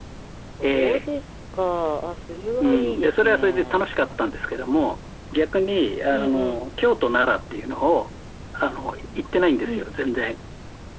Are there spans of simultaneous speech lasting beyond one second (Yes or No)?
Yes